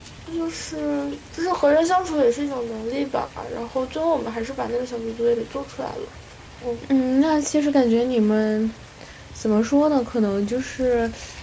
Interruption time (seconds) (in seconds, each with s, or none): none